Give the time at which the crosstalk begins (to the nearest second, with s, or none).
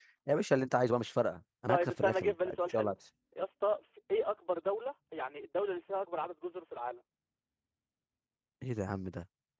2 s